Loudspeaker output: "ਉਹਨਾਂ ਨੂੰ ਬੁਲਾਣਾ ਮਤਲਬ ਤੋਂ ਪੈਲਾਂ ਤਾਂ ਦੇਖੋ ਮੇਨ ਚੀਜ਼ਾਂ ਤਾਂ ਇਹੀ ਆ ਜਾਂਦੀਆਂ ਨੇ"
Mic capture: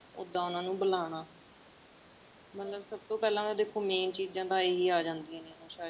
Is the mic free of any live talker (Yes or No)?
Yes